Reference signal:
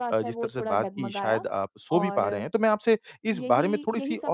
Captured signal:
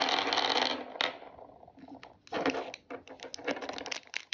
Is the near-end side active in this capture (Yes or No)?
No